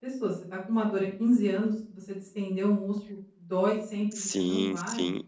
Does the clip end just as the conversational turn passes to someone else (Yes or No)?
Yes